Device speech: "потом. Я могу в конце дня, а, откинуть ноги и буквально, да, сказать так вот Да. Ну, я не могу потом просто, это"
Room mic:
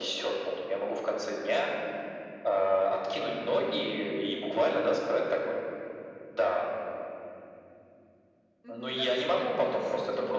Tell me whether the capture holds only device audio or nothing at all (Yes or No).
No